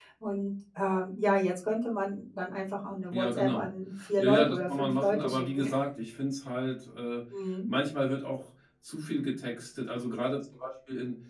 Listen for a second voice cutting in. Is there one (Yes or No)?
Yes